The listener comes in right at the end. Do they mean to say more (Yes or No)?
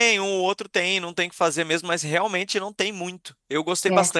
No